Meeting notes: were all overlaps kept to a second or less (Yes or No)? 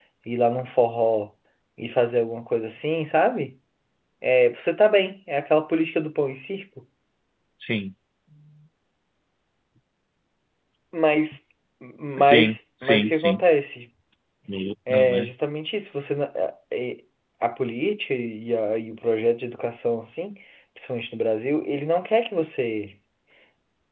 No